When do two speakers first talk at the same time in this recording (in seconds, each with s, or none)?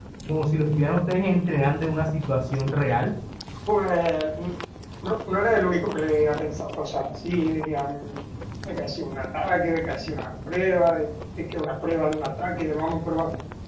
none